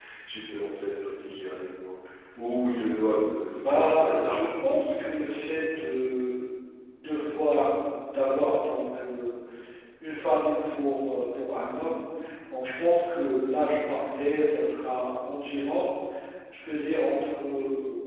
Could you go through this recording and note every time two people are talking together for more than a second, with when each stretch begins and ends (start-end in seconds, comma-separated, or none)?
3.6-5.9